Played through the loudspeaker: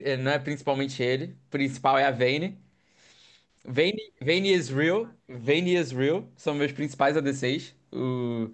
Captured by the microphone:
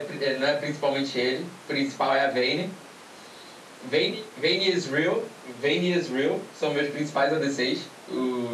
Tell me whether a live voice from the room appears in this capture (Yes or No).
No